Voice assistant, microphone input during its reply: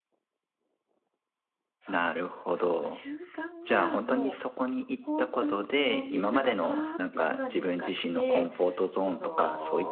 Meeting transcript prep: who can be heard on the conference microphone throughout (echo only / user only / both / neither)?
both